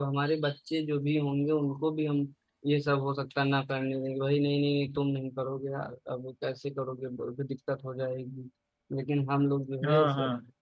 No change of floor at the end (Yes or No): Yes